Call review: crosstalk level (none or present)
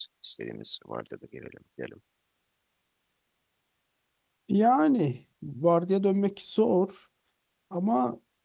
none